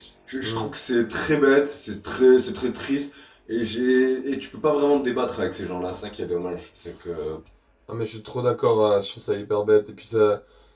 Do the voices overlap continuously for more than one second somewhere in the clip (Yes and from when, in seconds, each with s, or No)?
No